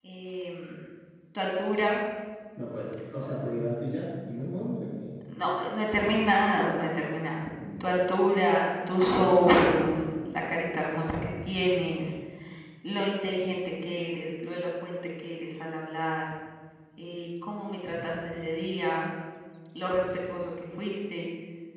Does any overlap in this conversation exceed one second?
No

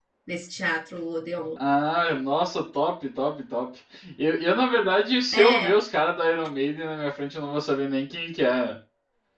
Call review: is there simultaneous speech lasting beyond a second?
No

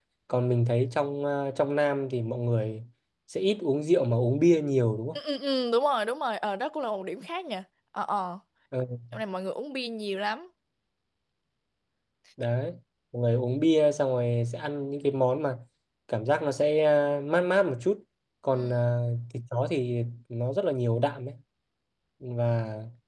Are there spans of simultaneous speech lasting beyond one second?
No

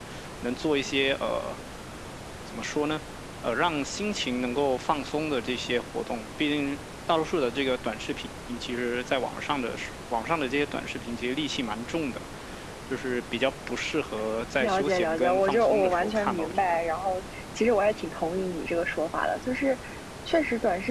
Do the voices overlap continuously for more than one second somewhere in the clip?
Yes, from 14.6 s

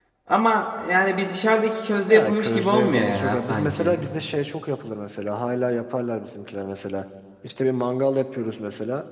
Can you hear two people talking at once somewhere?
Yes, from 2.0 s

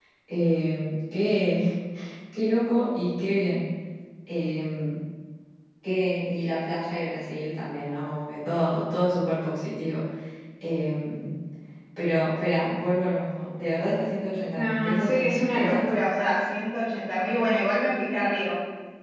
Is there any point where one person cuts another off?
Yes, from 14.5 s

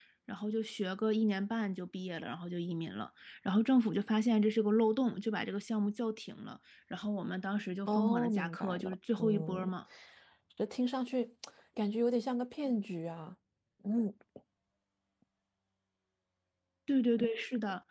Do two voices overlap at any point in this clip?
Yes, from 7.9 s

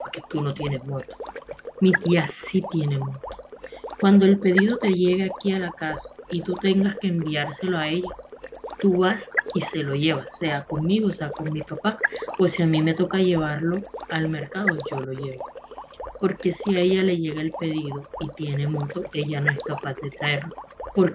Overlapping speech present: No

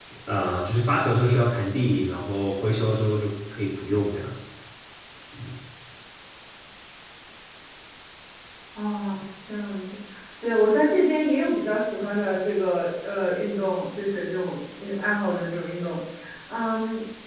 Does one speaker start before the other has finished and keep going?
No

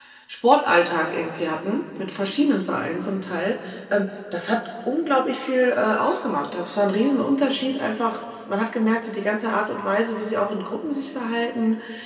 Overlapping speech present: No

